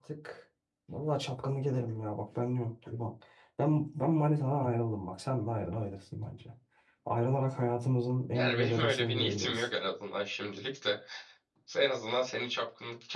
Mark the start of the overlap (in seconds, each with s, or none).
8.3 s